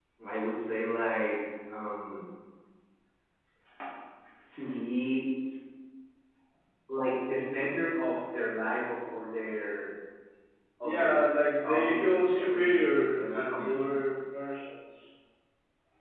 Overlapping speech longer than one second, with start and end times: 11.6-13.9

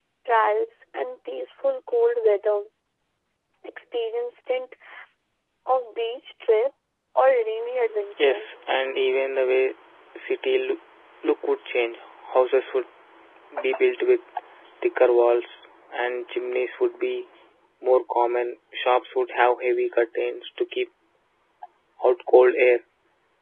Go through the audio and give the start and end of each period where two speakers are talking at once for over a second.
none

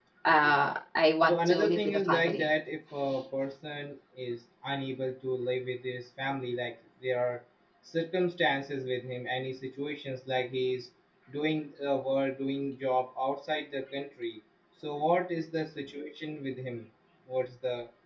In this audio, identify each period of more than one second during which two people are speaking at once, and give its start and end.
1.2-2.5

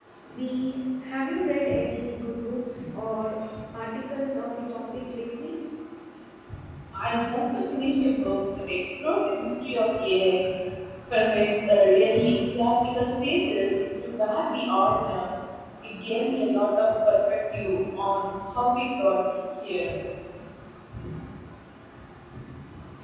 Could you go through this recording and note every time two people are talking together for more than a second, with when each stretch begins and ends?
none

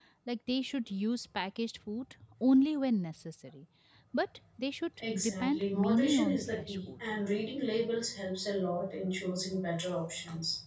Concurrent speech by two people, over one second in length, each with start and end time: 5.0-6.9

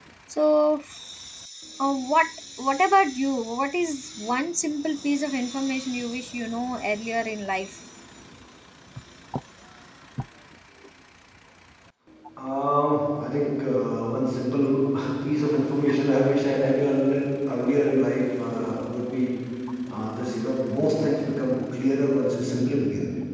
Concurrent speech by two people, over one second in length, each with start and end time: none

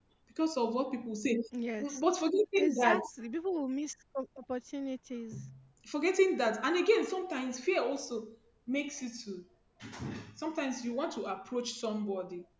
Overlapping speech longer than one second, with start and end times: none

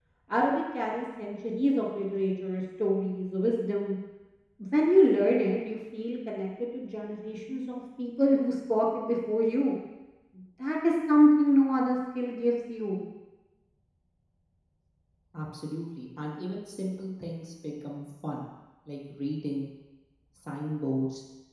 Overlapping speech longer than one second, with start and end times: none

